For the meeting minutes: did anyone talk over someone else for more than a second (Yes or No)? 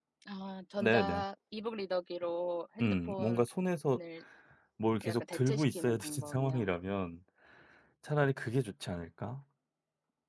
Yes